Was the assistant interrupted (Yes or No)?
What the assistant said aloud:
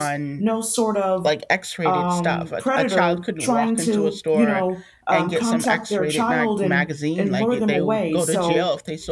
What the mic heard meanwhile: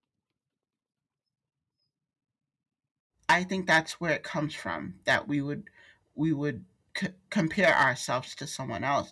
Yes